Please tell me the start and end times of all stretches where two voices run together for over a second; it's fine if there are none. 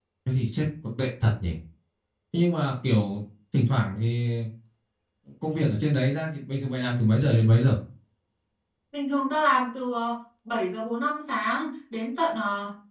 none

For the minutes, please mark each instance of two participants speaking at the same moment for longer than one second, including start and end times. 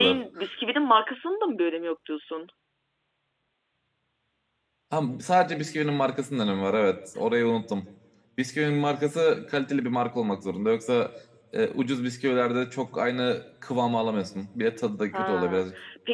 none

